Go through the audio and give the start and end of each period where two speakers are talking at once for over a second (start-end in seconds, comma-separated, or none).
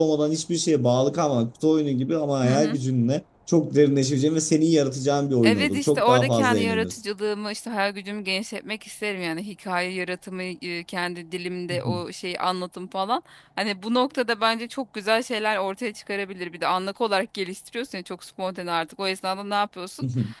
5.4-7.0